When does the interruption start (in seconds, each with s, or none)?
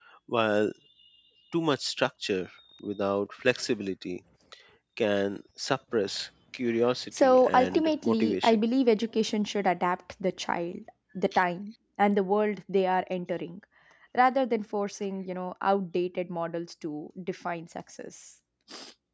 7.1 s